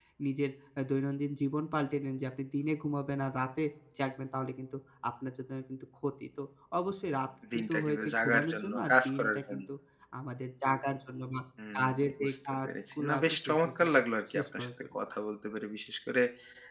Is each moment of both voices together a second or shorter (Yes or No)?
No